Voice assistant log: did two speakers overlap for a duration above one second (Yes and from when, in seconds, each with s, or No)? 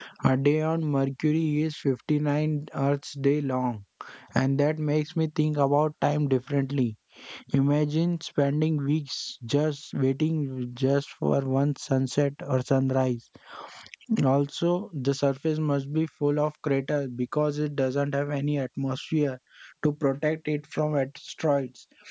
No